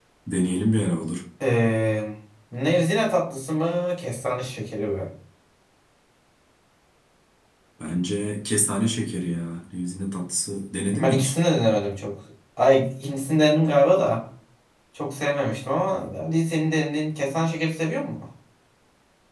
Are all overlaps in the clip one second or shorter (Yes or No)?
Yes